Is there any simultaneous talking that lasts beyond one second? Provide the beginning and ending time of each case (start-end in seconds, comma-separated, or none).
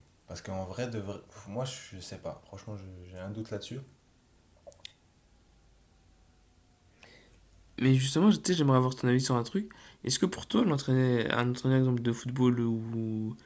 none